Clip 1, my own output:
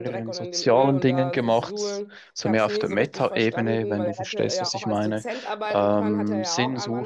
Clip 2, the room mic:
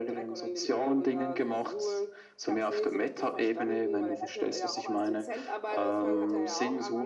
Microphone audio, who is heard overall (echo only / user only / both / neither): both